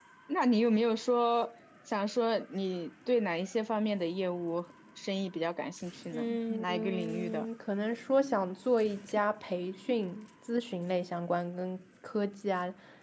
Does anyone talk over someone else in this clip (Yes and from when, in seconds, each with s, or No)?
Yes, from 6.1 s